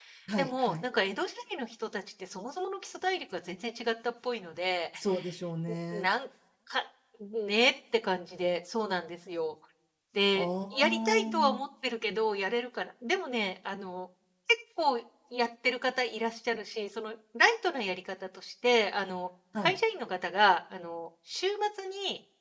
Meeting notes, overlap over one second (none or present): present